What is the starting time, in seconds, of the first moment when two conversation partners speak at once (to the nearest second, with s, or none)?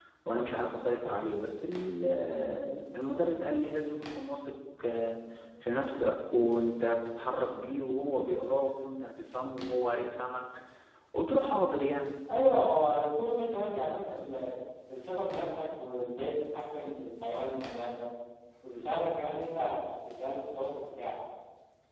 none